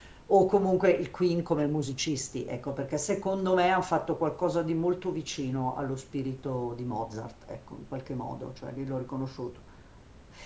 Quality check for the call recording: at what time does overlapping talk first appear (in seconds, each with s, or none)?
none